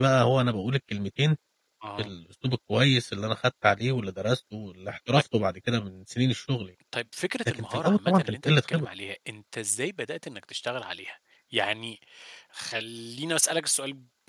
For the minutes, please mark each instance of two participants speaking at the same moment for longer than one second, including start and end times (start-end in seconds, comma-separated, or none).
7.6-8.8